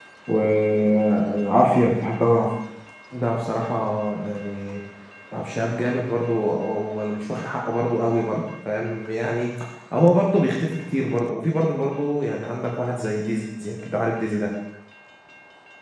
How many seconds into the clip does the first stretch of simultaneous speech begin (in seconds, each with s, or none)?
none